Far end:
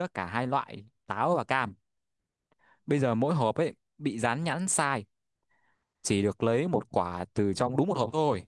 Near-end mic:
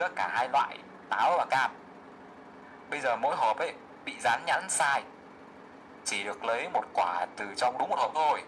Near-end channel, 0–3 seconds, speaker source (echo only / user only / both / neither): echo only